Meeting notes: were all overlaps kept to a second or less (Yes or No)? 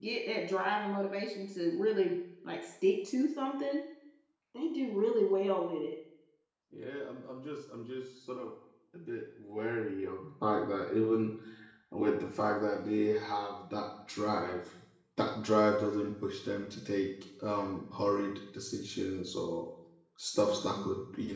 Yes